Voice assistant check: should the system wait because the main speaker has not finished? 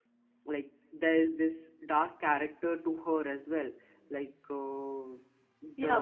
No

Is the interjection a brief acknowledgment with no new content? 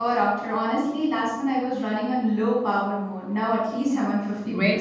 No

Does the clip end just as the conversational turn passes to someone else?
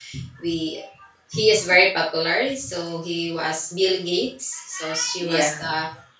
No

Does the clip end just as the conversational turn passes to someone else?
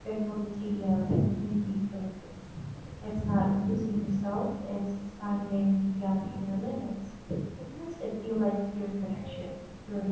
No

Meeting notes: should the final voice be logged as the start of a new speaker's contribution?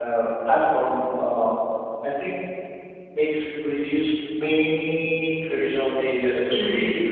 No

